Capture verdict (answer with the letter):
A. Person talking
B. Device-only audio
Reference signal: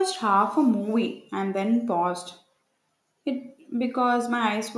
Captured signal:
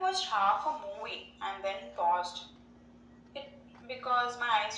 B